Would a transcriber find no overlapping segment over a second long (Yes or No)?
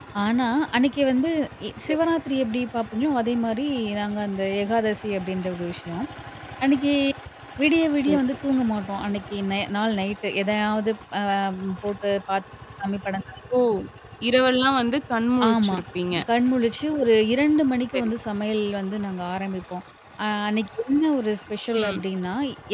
Yes